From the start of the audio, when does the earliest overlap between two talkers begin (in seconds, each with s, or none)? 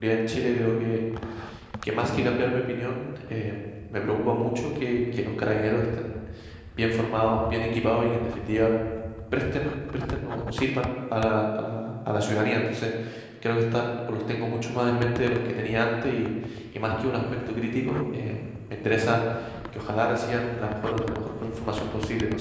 none